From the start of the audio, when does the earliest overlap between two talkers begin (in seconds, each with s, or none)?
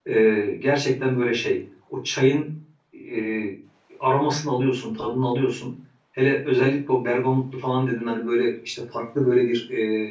none